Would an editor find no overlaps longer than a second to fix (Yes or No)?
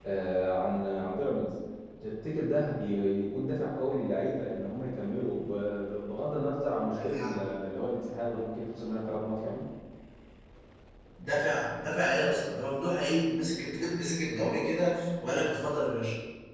Yes